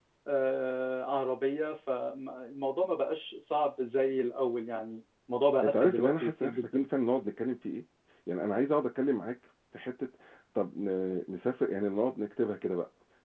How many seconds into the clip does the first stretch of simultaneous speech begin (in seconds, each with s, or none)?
5.6 s